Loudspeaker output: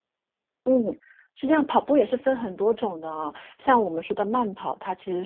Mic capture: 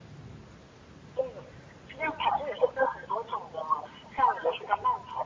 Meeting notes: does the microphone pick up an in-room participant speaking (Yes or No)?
No